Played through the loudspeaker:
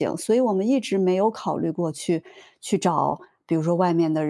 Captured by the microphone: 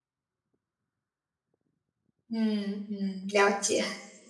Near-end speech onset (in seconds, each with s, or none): 2.3 s